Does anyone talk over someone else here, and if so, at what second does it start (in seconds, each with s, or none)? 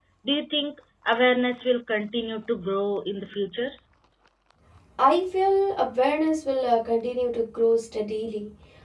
none